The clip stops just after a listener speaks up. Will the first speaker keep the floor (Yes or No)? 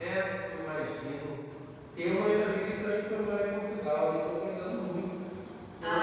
Yes